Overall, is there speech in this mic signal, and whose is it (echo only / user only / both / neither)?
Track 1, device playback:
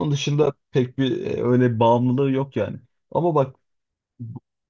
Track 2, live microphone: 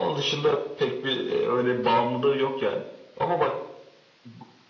echo only